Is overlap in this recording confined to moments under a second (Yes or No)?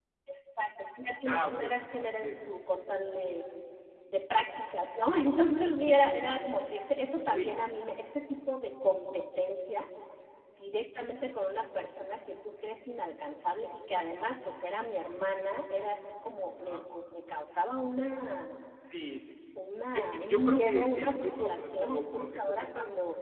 No